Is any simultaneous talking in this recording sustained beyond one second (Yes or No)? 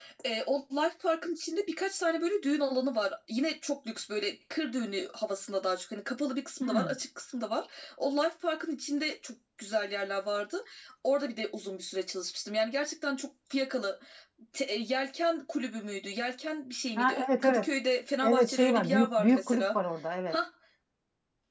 Yes